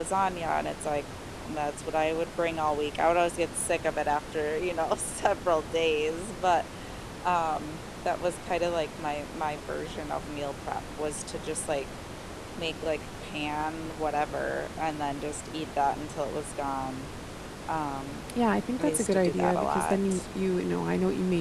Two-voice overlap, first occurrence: 19 s

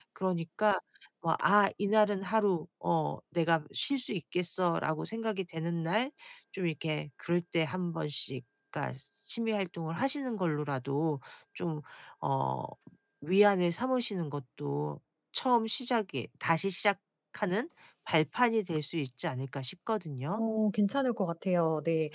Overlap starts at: none

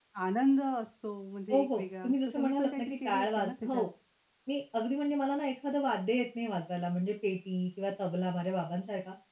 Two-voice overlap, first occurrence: 2 s

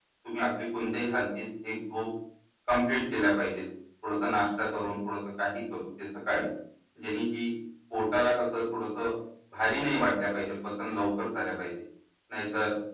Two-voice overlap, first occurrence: none

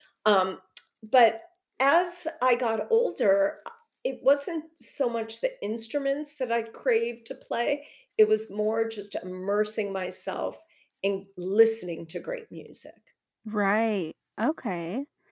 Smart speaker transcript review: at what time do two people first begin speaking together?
none

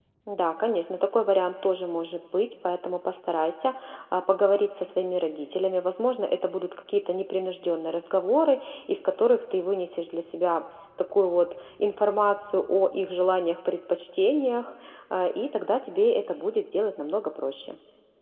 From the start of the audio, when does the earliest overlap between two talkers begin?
none

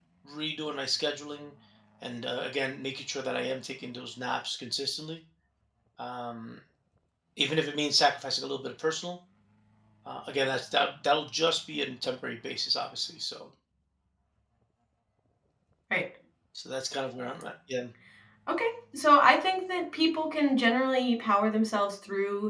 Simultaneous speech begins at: none

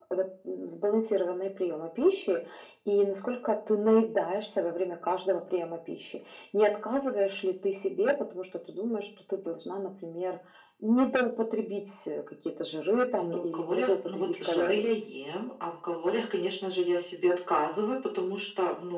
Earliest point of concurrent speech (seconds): 13 s

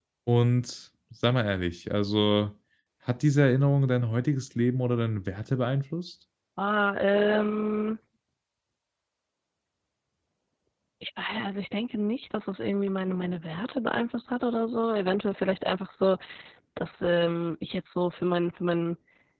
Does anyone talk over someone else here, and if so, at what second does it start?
none

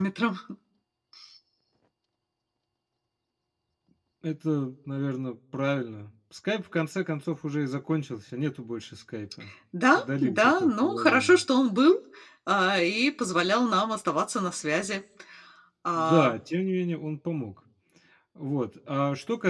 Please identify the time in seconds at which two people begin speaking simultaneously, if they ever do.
10 s

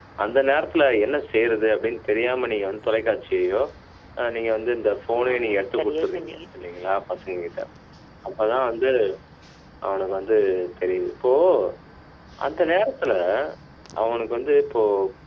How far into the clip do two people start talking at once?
5 s

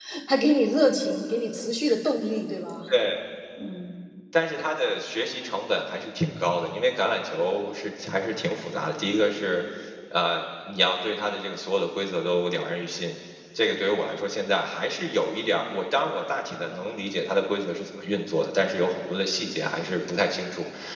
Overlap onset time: none

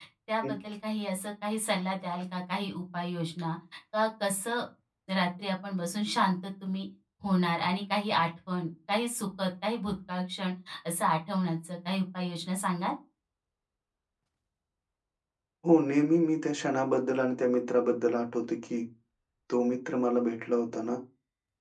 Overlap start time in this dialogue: none

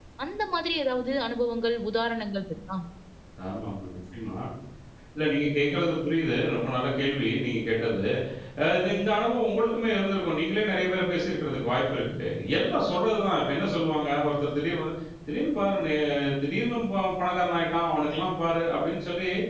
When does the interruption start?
none

